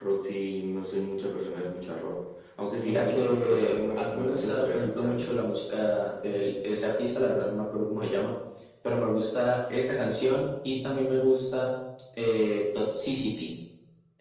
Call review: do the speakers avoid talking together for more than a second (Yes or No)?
No